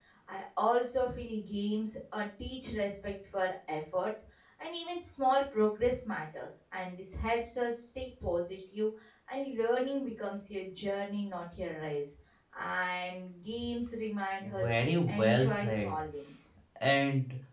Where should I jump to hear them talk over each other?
14 s

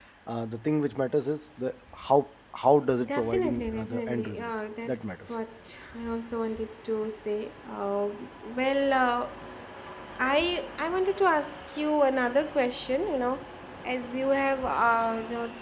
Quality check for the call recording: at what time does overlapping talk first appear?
3 s

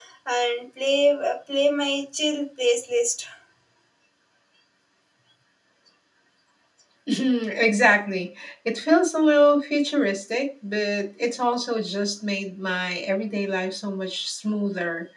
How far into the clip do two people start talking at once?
none

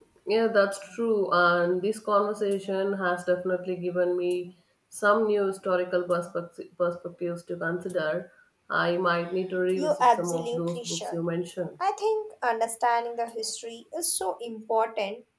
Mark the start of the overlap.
10 s

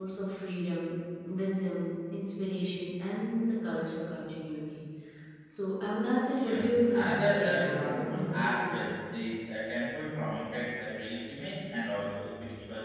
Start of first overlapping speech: 6 s

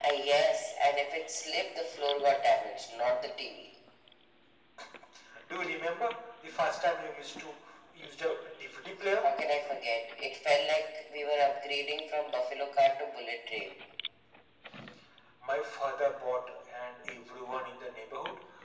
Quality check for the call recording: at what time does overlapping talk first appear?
none

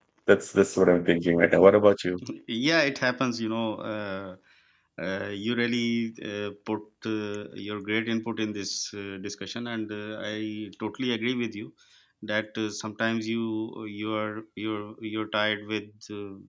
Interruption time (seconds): none

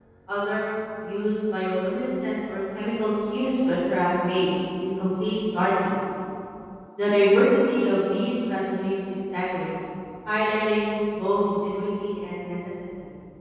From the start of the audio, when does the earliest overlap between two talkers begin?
none

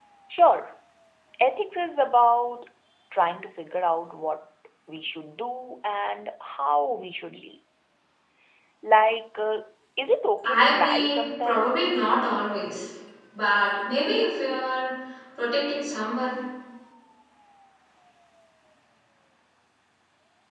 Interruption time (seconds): 10 s

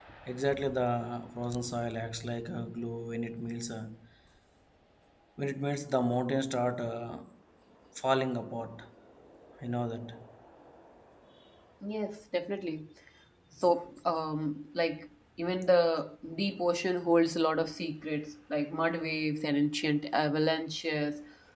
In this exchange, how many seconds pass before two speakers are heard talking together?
none

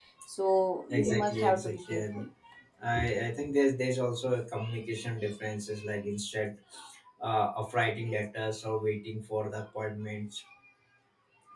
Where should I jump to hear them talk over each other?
1 s

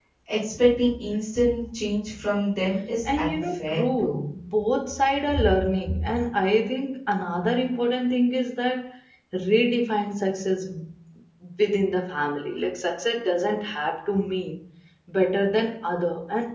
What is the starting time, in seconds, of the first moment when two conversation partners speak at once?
3 s

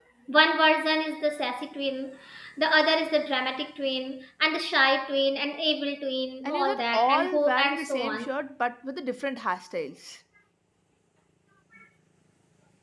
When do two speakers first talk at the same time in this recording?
6 s

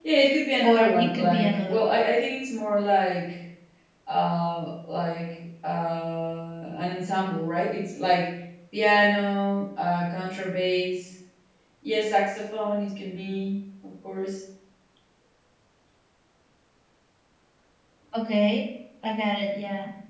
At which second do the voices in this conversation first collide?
1 s

